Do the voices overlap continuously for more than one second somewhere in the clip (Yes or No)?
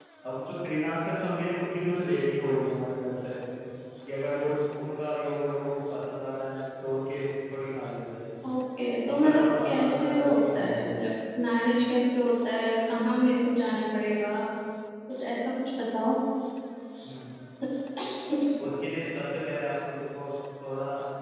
Yes